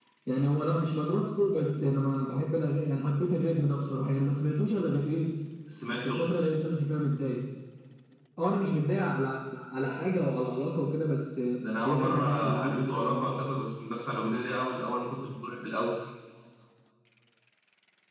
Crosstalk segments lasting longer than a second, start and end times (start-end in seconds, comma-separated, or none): 11.8-13.3